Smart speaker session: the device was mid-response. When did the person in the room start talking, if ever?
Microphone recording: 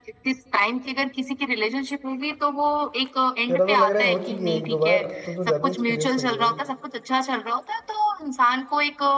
3.5 s

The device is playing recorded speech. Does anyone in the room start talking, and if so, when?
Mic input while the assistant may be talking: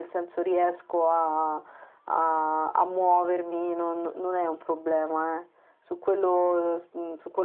none

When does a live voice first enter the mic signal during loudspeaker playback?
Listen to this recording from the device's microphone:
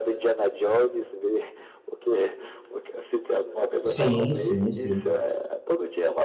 3.8 s

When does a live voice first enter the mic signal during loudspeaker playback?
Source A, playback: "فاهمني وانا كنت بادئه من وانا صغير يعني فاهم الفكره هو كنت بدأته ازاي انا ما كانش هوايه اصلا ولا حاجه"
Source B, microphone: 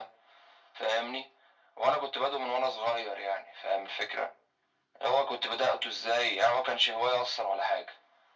none

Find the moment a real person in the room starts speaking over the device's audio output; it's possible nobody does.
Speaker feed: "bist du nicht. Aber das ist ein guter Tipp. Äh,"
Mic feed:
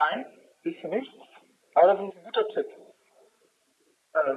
none

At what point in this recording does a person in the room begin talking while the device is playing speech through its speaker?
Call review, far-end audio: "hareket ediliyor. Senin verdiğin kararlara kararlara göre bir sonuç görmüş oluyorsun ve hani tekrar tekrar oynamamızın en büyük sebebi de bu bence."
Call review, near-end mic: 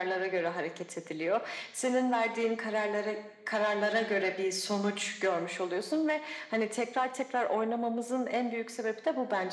none

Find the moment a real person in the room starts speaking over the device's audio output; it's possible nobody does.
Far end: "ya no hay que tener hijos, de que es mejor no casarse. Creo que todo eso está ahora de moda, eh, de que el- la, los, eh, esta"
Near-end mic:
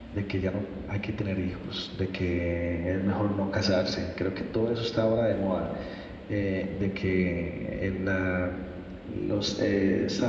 none

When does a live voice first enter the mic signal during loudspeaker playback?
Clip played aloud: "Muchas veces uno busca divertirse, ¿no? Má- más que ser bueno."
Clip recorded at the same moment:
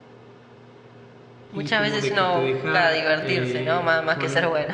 1.5 s

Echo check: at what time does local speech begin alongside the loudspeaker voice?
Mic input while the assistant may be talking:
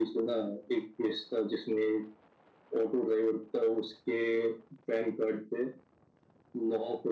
none

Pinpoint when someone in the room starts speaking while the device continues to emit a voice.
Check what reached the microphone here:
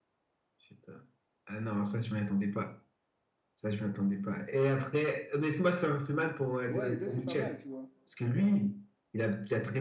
6.7 s

